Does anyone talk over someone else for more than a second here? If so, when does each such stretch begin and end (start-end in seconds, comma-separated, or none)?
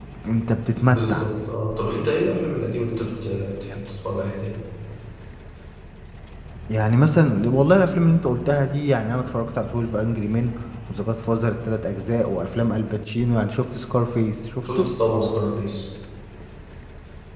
none